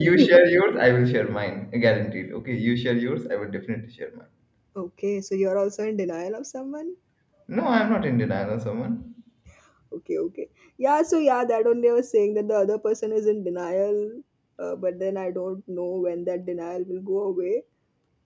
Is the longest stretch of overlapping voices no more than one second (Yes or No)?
Yes